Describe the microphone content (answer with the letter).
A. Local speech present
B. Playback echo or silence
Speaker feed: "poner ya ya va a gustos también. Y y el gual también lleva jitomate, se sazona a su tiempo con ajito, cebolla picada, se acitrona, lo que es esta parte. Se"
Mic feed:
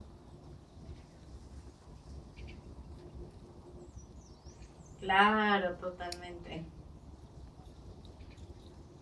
A